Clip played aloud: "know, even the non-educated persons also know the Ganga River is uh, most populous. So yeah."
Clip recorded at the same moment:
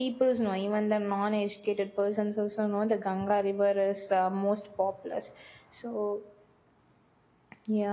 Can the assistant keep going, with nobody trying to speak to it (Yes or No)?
Yes